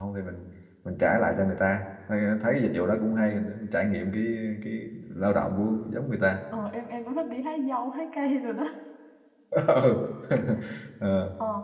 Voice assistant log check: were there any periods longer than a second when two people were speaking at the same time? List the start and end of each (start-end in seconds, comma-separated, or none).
none